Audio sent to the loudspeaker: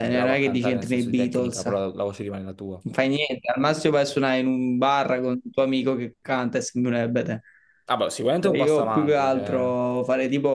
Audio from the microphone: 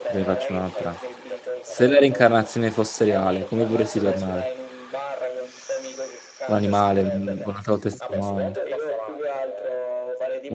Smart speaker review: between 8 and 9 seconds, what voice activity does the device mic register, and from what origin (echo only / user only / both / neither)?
both